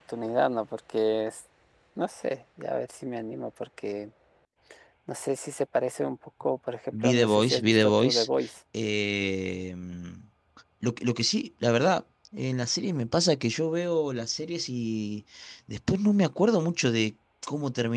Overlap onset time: 6.9 s

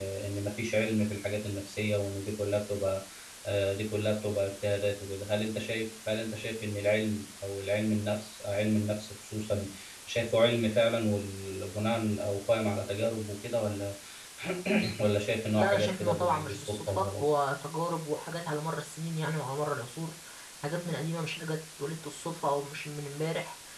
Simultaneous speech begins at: 15.6 s

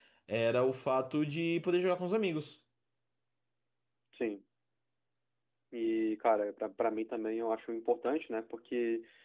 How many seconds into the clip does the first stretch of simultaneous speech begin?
none

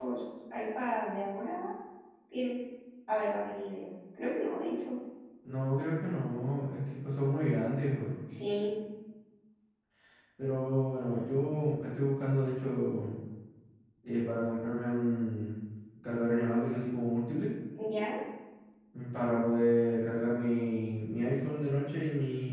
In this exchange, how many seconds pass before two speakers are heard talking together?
none

